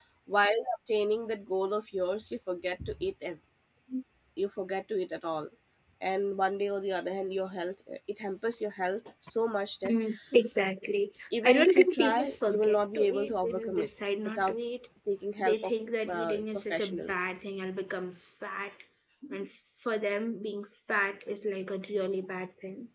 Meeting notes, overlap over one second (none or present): present